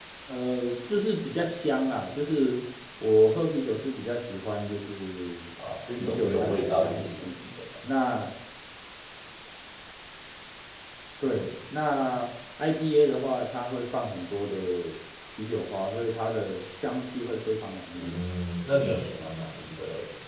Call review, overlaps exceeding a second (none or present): present